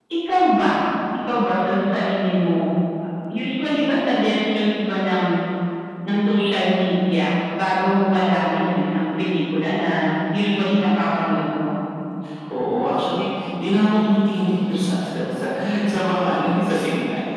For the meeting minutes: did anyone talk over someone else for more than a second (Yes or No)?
No